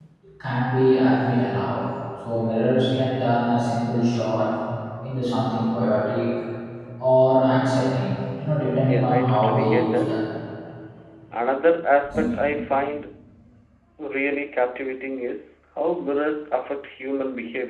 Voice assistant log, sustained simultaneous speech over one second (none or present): present